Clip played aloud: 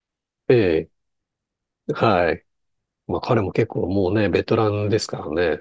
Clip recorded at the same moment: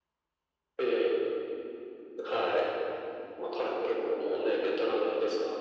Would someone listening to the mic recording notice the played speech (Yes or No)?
Yes